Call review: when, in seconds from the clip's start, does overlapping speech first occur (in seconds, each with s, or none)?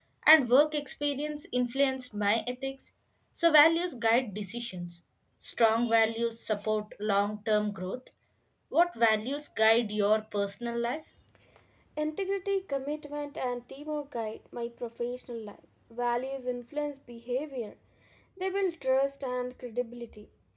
none